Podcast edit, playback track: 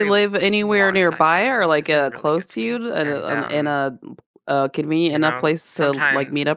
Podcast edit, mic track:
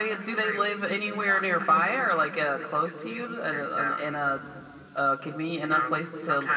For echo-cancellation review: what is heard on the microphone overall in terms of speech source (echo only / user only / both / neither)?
echo only